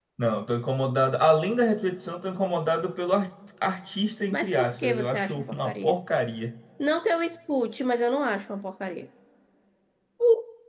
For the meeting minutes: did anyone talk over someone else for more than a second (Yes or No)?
Yes